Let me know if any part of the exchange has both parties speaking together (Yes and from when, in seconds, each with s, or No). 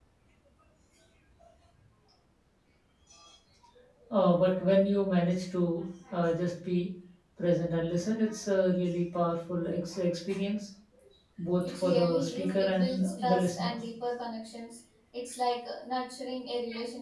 Yes, from 11.7 s